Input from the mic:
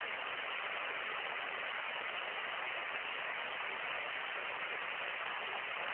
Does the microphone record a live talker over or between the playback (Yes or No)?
No